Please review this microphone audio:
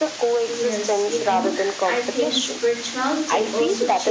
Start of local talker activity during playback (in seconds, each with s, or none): 0.5 s